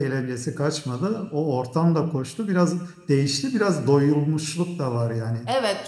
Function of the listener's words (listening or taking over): taking over